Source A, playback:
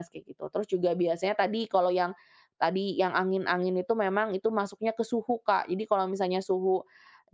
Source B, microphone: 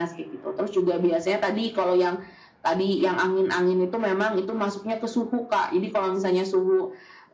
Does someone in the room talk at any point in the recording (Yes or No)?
No